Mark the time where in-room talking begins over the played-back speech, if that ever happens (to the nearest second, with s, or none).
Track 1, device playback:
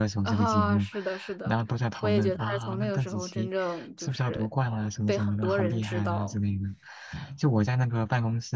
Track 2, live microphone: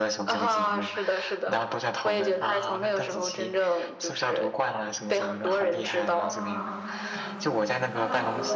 6 s